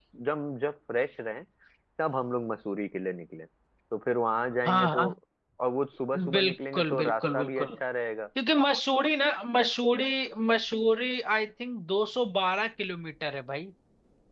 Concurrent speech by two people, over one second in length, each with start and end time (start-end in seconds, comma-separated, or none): 6.3-7.7